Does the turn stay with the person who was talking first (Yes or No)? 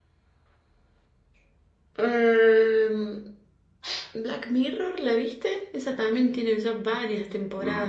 No